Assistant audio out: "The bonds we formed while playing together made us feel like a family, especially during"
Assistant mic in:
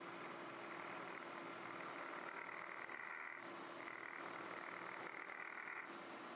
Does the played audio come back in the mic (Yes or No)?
No